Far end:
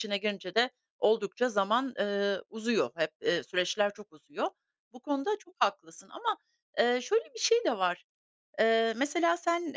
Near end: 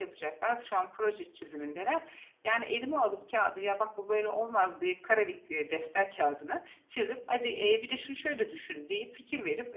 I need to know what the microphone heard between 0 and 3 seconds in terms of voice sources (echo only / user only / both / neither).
user only